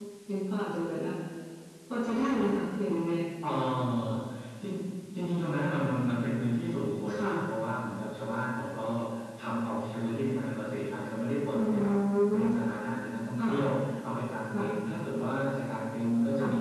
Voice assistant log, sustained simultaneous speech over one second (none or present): none